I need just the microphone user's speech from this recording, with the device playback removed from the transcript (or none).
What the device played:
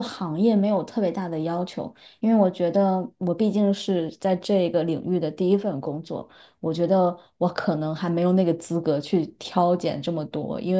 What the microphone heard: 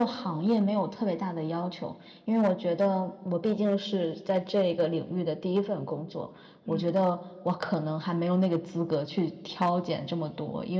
嗯